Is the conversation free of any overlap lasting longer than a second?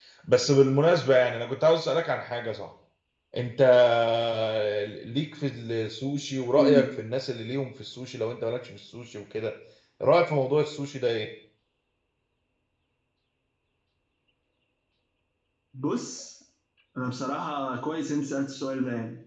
Yes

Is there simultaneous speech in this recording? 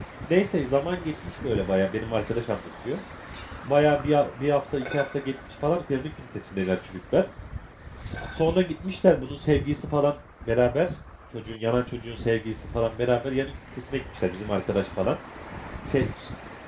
No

